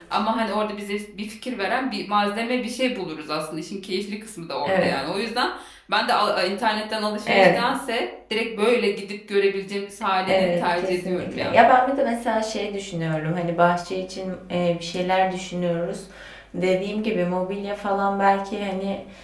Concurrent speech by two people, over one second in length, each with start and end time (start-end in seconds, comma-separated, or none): 10.3-11.6